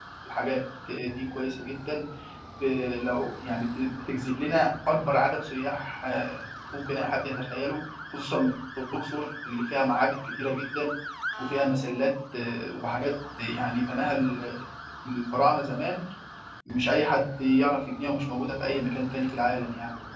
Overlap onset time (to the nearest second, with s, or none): none